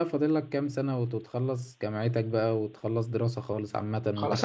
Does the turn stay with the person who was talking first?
No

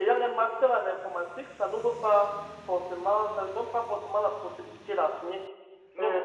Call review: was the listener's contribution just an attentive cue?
Yes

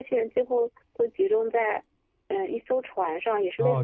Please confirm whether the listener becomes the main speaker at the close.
Yes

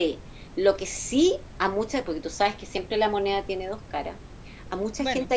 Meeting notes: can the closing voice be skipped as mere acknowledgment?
Yes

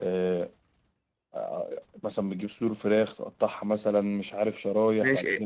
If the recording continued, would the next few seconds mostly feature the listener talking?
Yes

